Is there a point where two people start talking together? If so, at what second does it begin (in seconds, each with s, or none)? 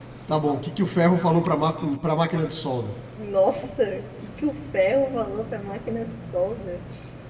none